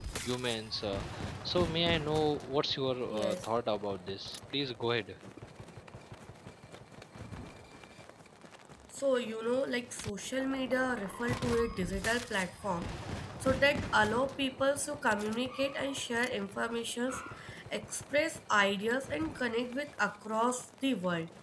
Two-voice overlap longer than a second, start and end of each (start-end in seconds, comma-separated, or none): none